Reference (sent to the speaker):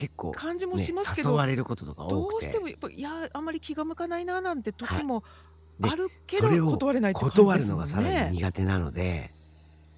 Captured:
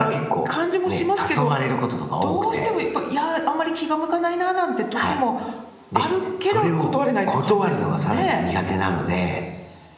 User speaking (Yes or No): No